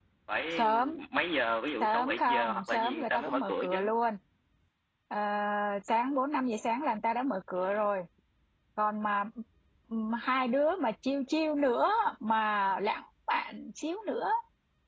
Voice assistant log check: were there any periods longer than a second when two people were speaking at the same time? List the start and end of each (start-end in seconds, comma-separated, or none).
1.8-3.8